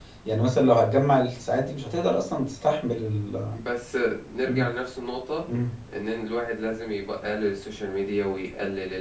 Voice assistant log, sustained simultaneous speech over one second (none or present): none